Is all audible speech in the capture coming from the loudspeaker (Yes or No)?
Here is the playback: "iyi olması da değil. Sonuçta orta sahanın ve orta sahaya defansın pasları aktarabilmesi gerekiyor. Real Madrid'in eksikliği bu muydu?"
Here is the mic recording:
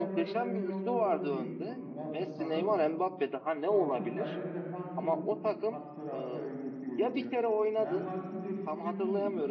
No